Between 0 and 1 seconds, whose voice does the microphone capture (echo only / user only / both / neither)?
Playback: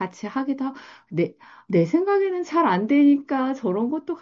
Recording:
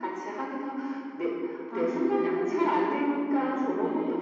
echo only